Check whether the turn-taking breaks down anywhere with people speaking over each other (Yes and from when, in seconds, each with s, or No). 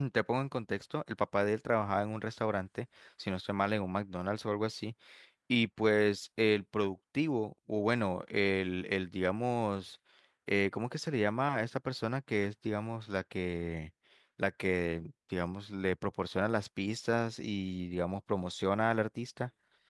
No